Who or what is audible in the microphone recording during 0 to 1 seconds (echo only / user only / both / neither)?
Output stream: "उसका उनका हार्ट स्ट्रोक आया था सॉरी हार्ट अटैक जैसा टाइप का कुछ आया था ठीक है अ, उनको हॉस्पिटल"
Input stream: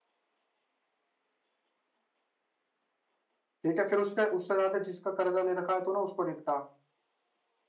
neither